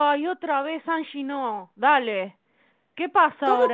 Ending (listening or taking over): taking over